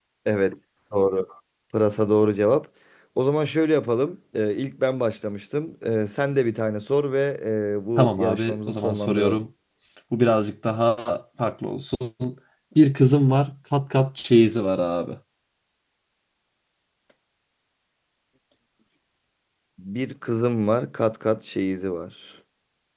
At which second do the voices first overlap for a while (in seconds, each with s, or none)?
8.0 s